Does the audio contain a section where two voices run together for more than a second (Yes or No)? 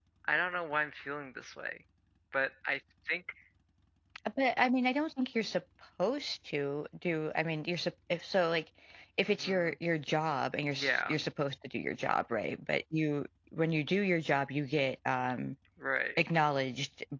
No